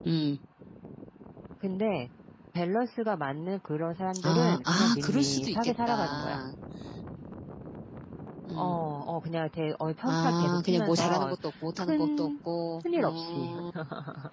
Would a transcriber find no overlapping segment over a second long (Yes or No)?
No